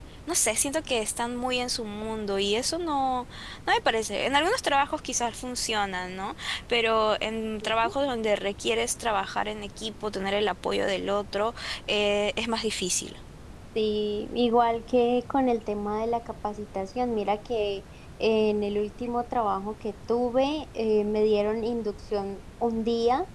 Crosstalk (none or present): none